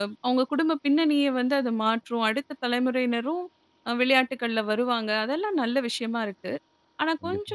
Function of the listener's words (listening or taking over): listening